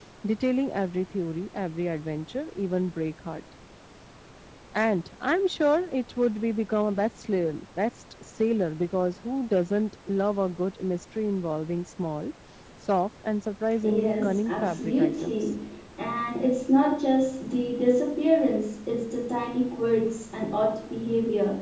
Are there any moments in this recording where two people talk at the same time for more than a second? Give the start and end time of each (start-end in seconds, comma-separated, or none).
13.8-15.5